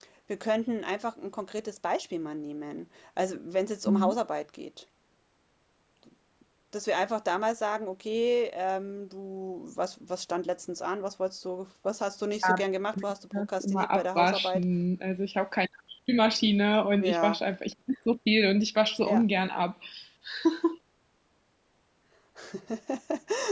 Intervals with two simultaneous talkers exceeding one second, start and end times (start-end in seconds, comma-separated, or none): 13.3-14.6